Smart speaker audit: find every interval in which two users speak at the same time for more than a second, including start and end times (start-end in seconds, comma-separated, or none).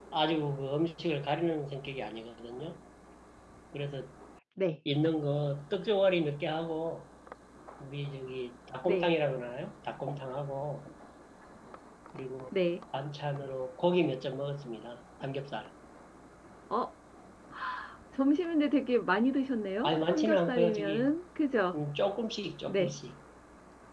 19.8-21.1